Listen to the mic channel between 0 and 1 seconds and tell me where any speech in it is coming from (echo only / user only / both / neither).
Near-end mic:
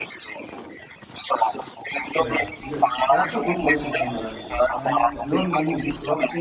echo only